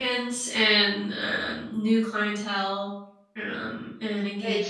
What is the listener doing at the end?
taking over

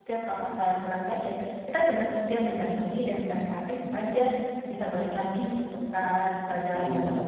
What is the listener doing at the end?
taking over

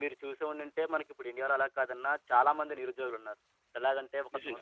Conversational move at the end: listening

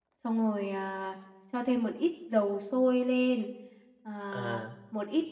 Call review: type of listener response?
listening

